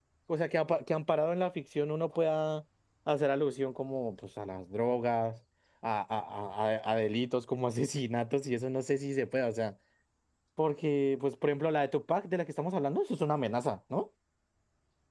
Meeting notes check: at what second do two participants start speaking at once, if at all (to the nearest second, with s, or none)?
none